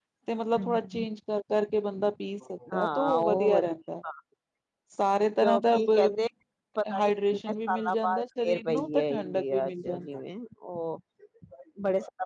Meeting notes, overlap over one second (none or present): present